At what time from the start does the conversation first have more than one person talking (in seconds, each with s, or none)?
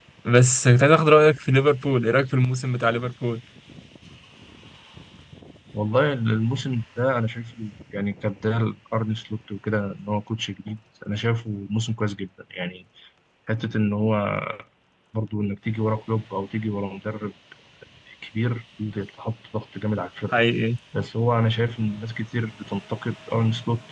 none